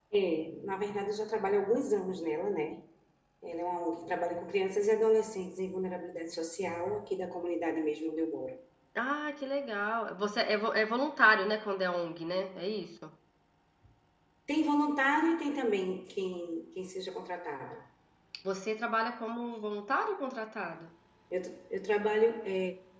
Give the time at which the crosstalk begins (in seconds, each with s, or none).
none